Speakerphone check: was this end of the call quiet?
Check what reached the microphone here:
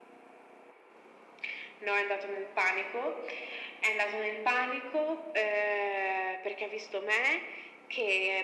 Yes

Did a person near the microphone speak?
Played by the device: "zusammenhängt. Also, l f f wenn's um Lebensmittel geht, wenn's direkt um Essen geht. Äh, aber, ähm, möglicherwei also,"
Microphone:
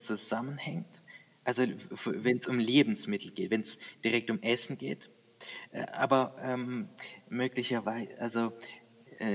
No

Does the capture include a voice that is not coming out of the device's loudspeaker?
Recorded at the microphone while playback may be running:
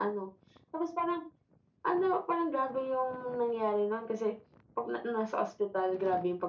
No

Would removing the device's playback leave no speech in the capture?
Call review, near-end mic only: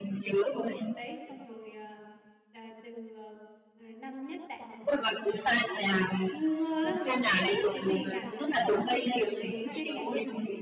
No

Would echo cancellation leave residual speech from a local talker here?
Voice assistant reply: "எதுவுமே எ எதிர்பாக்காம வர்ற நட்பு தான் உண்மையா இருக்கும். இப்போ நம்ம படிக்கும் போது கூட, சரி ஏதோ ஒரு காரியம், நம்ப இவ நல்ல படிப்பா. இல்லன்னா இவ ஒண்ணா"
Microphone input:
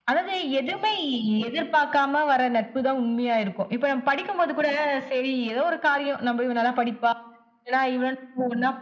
No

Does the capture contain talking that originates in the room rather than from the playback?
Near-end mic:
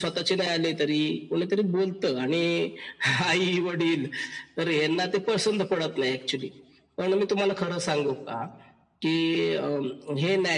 No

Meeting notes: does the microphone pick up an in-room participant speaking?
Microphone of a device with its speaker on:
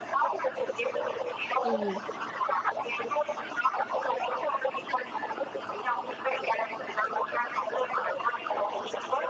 Yes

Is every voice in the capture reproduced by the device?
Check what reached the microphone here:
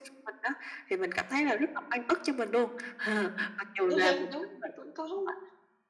No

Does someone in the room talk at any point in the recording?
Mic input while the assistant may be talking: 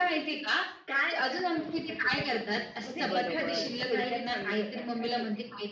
Yes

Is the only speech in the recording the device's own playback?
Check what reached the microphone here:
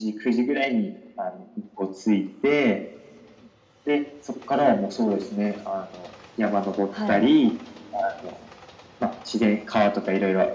No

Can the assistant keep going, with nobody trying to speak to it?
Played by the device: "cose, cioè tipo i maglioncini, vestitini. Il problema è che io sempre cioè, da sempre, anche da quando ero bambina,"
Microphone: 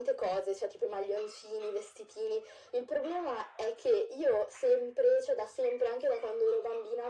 Yes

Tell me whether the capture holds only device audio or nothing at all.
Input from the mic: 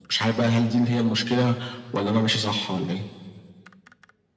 Yes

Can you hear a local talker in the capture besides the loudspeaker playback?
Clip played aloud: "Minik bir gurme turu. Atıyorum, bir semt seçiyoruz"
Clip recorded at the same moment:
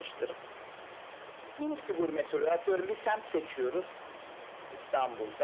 No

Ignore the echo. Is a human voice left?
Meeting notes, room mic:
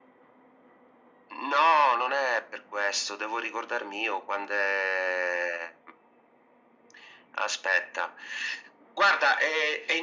No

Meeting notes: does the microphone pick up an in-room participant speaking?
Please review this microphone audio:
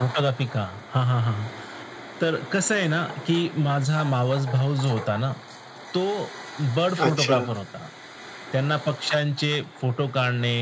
Yes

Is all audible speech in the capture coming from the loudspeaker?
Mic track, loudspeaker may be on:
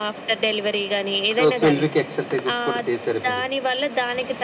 No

